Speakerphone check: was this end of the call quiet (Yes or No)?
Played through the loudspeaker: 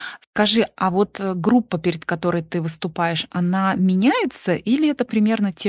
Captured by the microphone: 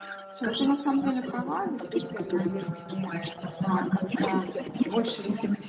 No